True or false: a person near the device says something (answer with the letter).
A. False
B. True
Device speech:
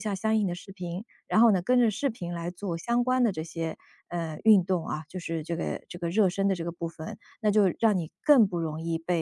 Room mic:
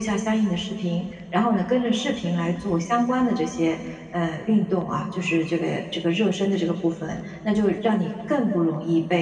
A